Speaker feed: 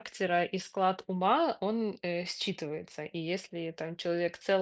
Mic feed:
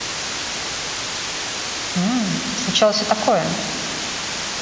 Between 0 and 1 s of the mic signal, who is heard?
neither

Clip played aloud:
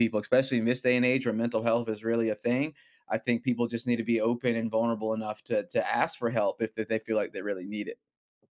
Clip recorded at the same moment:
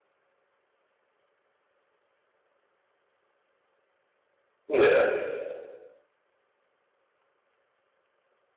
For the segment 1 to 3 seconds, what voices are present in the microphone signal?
neither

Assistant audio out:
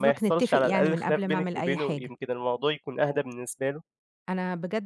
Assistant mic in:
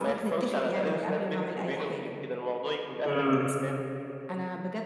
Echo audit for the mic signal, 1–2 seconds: echo only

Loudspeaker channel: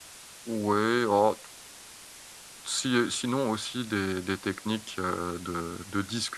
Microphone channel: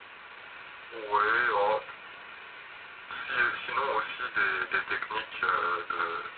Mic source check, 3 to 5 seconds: echo only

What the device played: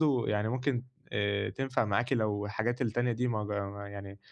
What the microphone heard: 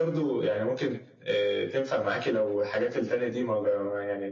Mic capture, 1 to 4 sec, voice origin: echo only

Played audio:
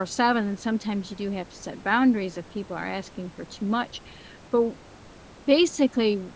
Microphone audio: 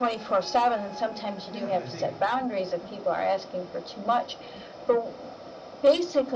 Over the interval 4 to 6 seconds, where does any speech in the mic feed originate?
echo only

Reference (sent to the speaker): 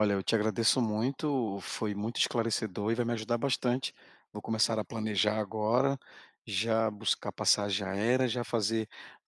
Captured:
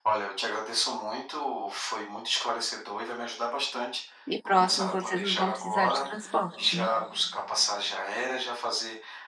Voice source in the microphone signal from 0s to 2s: echo only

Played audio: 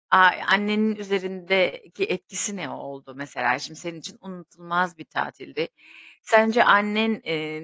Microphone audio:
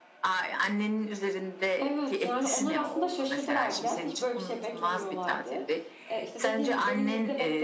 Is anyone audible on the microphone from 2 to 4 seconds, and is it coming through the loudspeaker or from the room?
both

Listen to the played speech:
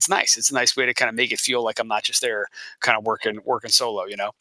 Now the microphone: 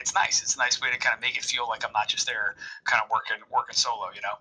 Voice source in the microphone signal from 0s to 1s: echo only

